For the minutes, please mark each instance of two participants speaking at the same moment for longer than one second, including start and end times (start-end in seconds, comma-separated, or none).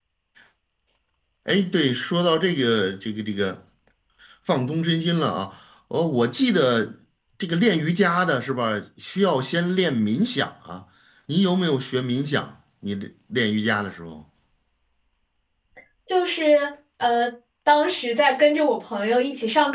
none